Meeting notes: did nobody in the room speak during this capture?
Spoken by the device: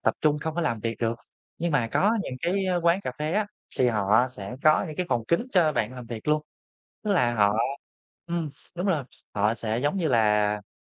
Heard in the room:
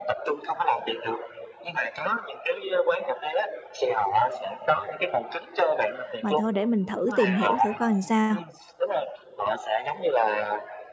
No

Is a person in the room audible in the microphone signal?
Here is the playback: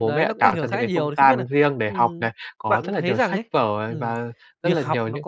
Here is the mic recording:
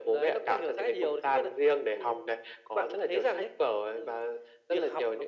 No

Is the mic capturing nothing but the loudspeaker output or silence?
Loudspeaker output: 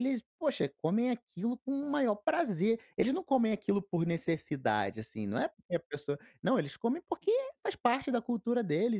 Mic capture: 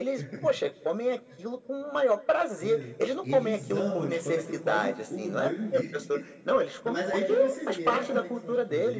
No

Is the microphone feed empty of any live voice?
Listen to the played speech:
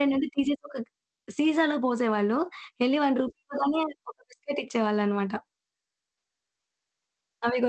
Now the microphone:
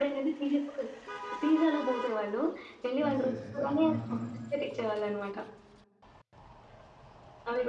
No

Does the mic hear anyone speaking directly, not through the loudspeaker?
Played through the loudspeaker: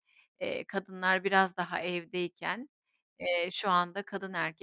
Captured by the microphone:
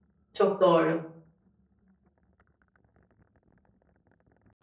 Yes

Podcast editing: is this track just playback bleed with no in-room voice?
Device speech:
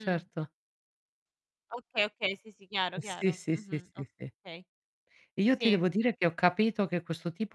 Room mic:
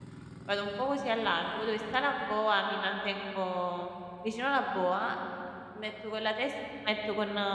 No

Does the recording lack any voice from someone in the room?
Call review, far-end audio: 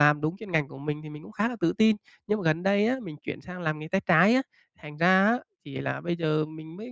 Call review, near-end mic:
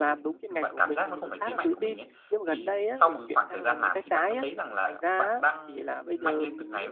No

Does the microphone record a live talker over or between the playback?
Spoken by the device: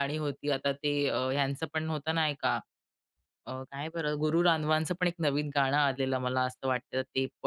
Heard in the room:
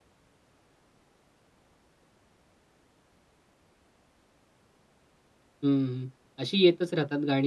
Yes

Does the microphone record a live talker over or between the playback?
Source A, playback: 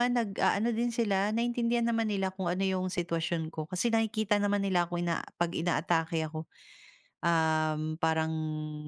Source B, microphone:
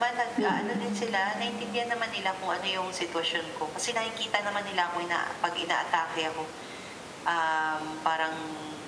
Yes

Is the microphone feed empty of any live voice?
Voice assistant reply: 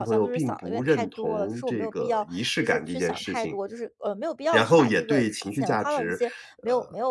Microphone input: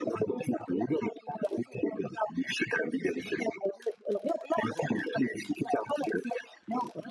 Yes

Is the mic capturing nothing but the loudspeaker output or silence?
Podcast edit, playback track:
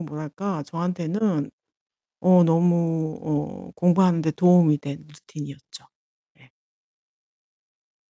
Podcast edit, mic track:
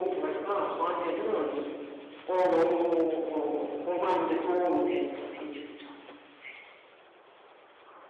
Yes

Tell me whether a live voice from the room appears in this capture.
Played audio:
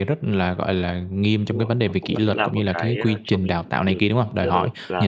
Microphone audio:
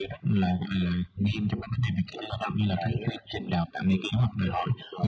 No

